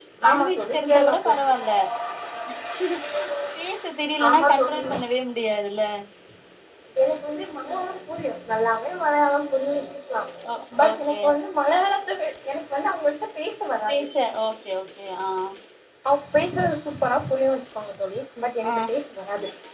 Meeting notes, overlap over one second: present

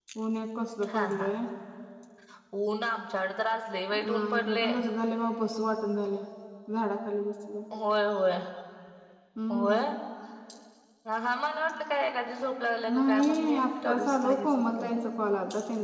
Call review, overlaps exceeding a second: present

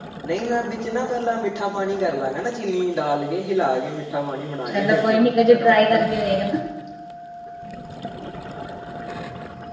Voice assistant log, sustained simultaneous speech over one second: present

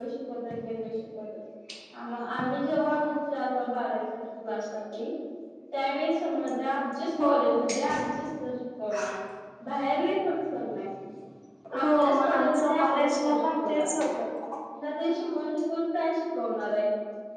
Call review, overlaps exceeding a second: present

